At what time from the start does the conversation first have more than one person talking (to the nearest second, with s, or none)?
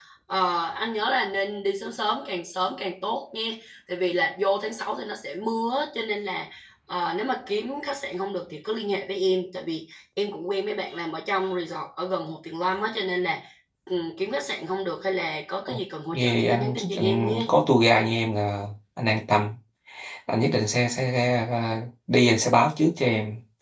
16 s